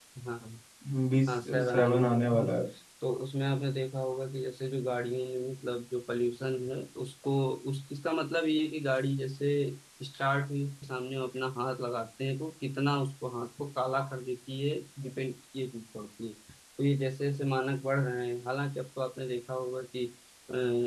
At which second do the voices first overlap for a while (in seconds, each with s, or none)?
1.3 s